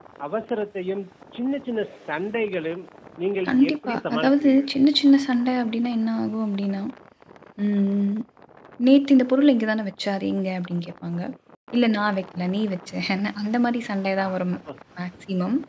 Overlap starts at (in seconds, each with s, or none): 3.5 s